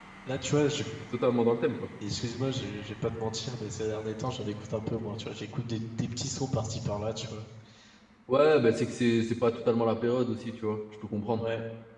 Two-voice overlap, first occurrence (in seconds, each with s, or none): none